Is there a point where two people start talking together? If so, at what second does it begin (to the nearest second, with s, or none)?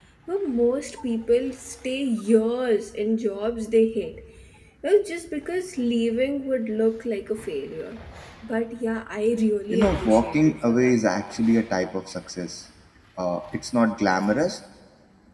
10 s